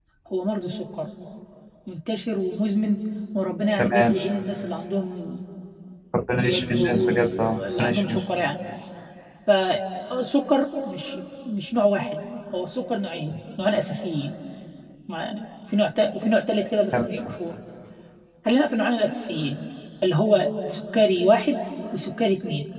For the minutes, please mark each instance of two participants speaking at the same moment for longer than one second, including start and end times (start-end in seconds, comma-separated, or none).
6.3-8.0